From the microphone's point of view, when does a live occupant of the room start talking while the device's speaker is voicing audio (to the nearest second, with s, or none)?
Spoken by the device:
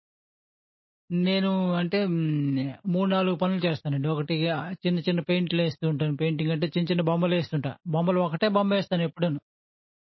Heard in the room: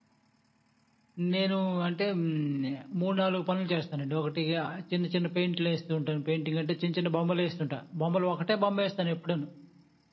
none